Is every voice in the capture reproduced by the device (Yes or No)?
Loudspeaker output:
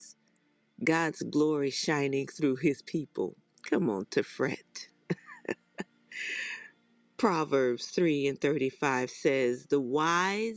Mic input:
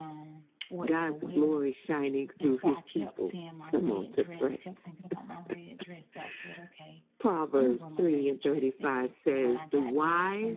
No